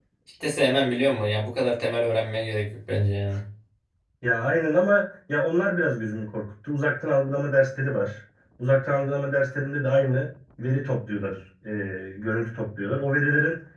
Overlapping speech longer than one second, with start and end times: none

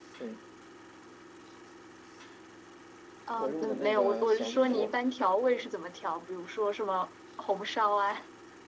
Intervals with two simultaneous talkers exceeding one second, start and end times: 3.4-4.9

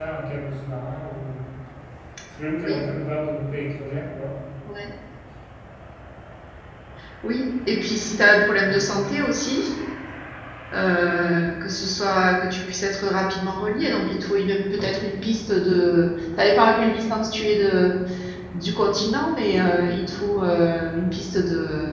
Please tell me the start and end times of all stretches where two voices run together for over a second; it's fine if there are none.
none

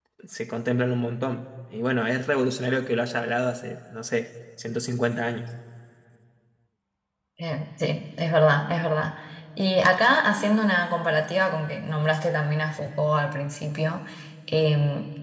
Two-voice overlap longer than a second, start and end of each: none

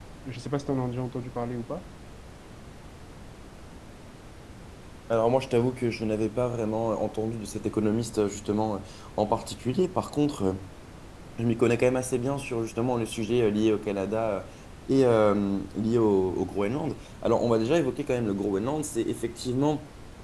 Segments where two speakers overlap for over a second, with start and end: none

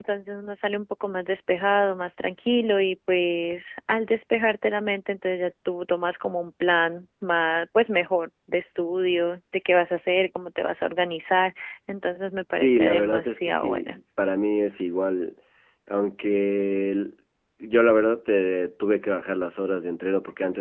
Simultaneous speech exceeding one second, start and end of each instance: 12.6-14.0

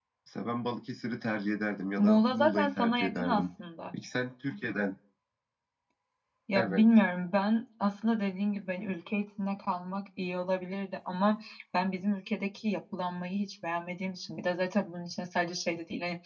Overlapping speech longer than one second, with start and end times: 2.0-3.4

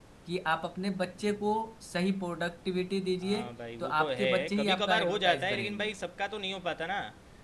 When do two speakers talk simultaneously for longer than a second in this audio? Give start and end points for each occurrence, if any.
3.8-5.9

